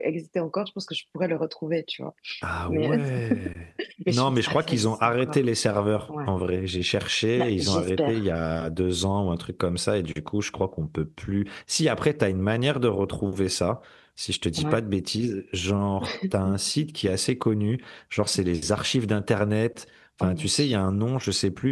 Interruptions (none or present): present